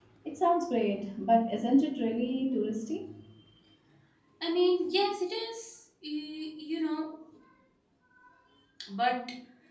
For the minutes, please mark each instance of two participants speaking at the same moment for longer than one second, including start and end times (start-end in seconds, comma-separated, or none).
none